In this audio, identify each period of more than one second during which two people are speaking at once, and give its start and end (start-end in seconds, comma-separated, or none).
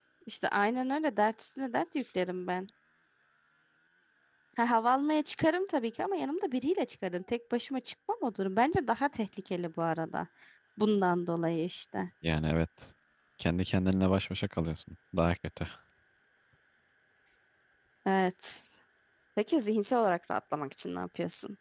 none